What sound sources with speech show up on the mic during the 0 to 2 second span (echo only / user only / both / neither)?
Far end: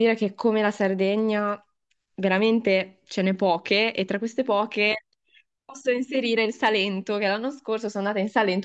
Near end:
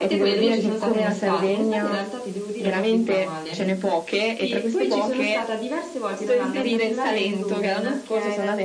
both